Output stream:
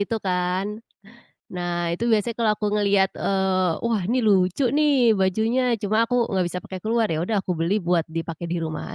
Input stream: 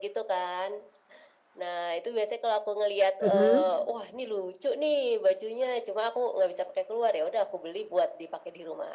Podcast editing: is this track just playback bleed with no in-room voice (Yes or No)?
No